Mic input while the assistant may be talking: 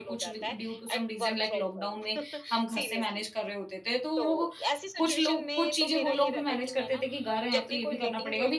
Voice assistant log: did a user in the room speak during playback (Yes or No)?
Yes